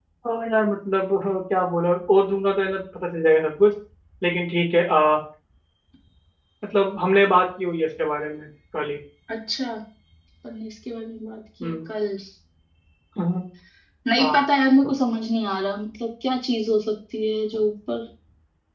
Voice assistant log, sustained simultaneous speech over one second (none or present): none